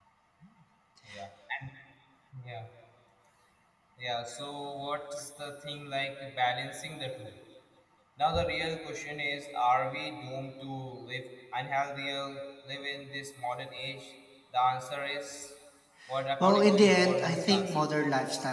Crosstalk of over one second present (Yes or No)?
Yes